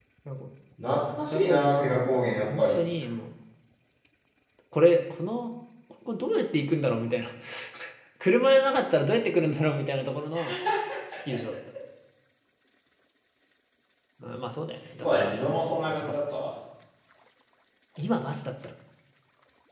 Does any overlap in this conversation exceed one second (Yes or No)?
Yes